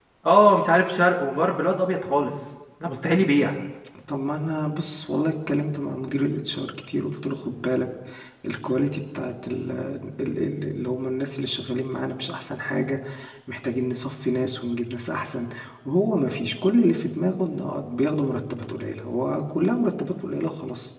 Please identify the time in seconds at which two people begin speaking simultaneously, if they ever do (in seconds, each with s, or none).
none